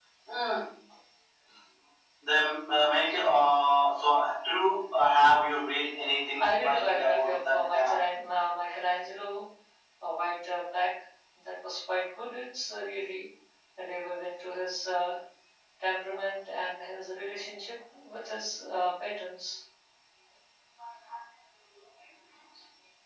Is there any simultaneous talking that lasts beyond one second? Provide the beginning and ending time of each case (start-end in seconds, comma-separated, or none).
6.4-8.0